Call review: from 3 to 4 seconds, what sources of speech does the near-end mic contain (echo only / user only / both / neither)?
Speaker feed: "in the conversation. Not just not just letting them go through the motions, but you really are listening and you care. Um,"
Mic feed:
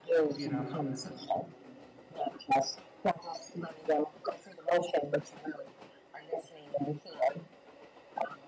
echo only